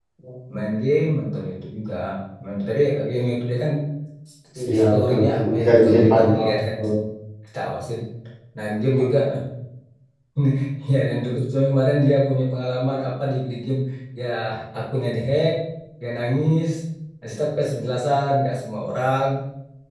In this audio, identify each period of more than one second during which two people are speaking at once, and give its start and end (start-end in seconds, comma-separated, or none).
4.7-6.7